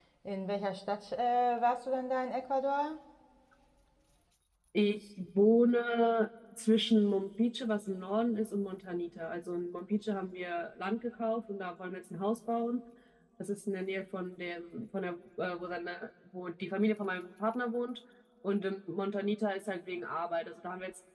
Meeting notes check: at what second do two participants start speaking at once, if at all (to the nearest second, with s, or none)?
none